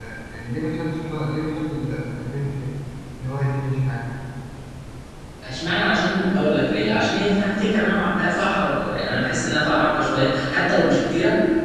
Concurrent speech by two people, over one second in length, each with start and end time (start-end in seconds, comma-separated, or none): none